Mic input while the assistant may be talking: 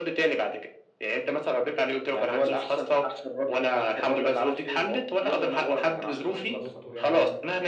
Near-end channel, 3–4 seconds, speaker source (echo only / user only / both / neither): echo only